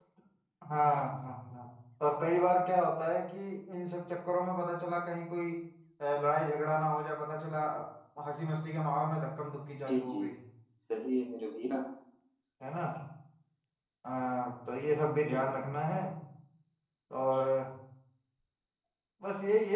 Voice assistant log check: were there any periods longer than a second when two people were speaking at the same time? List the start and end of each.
none

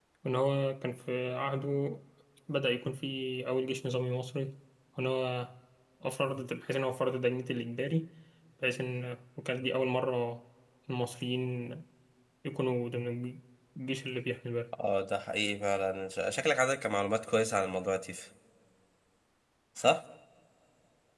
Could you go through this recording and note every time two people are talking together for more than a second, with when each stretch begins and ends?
none

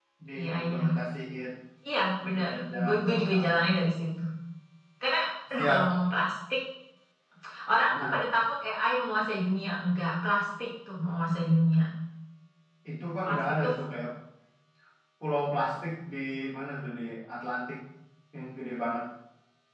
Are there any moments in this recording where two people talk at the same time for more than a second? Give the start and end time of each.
2.2-3.7

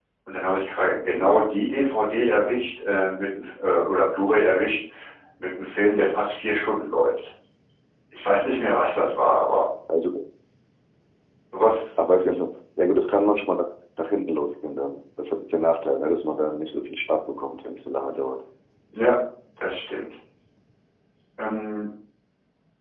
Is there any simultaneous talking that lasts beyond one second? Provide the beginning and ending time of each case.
none

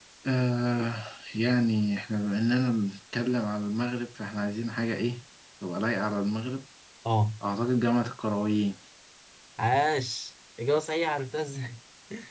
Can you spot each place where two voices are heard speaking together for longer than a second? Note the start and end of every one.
none

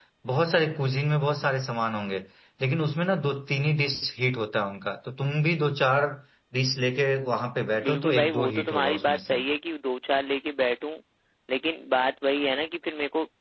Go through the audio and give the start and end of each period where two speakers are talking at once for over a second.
7.8-9.4

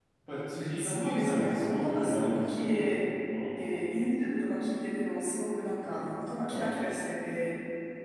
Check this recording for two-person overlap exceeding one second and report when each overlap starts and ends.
0.8-2.9

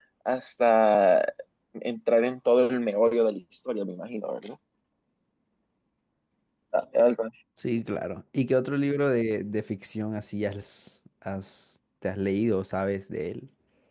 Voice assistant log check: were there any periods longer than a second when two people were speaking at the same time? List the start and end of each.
none

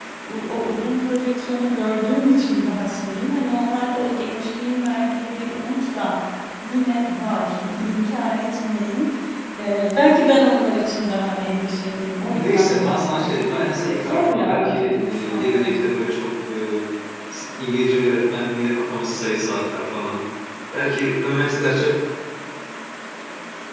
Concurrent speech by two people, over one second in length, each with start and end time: 12.3-15.5

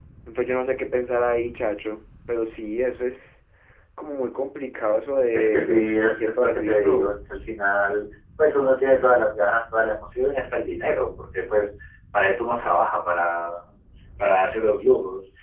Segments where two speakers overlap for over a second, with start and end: 5.3-7.1

